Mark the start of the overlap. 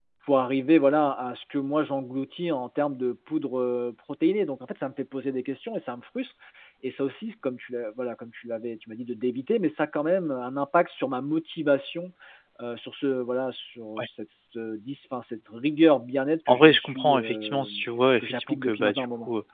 16 s

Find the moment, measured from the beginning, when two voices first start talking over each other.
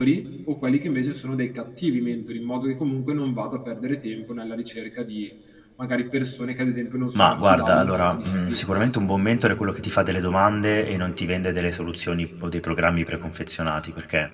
7 s

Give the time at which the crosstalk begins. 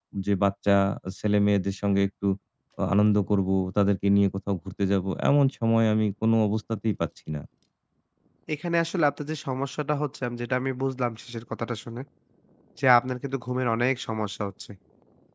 none

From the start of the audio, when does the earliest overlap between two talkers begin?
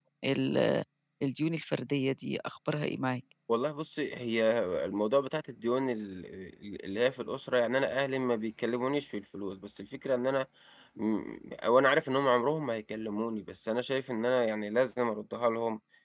none

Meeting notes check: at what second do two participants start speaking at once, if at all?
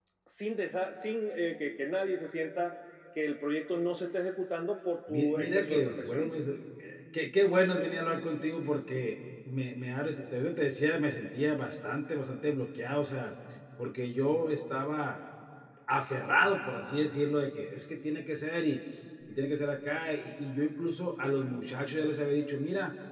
5 s

